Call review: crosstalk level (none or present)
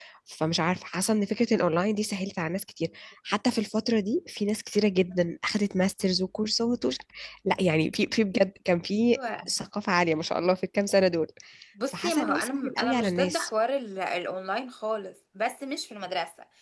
present